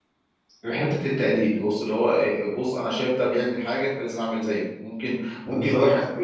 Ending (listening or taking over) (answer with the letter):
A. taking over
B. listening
B